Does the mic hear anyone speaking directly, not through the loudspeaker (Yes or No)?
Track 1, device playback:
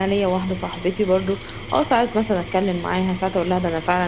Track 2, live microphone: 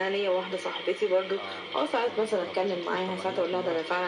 Yes